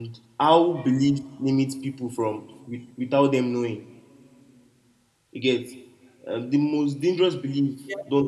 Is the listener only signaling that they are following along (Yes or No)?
Yes